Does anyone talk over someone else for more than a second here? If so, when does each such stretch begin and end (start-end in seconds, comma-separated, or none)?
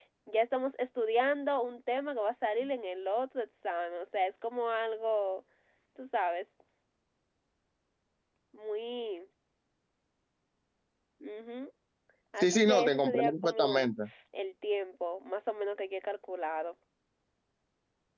12.4-13.9